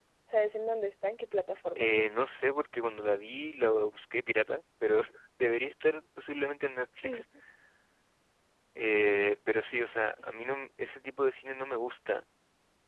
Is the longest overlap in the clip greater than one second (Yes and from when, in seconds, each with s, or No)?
No